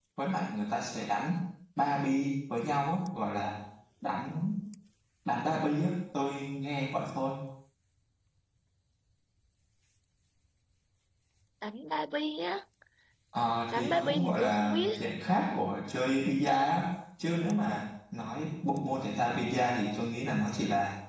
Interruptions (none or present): present